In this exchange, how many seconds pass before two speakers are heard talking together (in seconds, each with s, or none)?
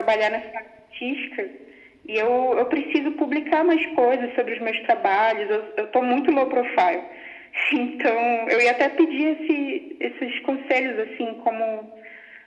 none